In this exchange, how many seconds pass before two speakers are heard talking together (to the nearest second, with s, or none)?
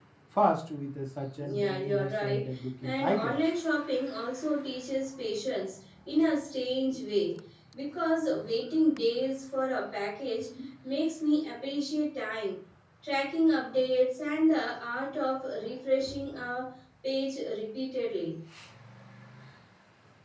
1 s